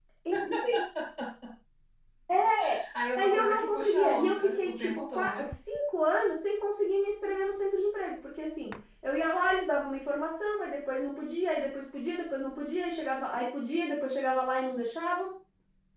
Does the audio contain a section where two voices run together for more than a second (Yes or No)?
Yes